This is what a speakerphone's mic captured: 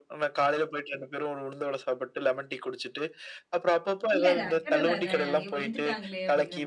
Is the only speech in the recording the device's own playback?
No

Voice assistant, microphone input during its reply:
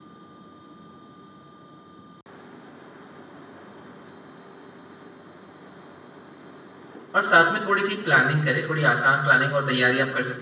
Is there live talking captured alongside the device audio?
Yes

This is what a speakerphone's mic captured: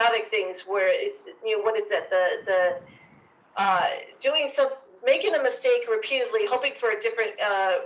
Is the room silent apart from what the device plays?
Yes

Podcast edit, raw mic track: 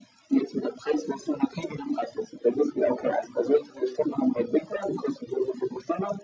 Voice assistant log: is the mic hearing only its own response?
Yes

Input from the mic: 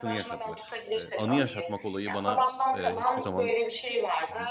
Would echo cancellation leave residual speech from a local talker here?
Yes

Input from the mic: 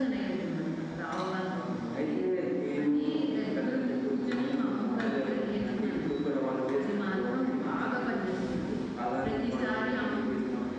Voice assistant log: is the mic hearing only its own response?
Yes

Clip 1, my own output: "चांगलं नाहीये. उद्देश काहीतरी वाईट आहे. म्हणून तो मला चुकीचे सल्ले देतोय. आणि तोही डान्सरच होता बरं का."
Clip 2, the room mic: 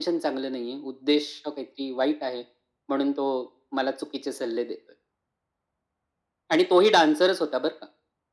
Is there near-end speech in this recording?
No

